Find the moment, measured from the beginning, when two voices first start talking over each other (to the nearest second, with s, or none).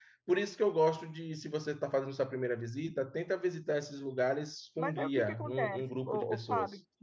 5 s